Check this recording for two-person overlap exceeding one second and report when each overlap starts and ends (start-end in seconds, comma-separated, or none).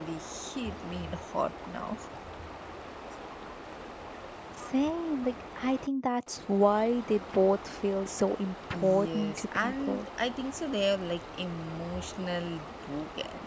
8.7-10.1